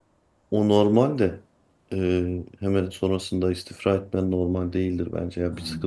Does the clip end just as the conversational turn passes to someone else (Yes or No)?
No